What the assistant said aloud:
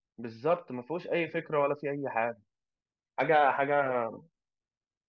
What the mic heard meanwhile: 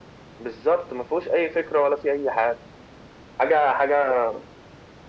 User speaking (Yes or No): No